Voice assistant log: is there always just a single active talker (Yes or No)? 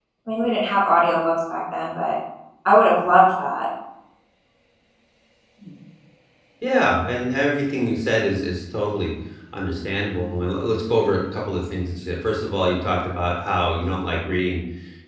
Yes